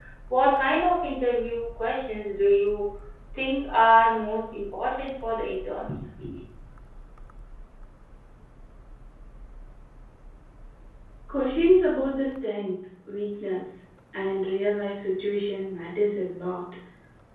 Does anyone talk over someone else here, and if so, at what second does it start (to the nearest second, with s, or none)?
none